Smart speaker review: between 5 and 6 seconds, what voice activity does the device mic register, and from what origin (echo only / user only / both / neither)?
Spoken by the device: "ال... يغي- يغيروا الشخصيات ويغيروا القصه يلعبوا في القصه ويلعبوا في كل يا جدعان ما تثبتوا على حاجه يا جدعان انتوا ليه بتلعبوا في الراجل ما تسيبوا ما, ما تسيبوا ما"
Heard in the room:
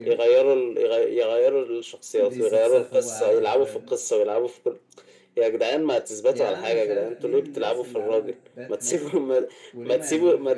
echo only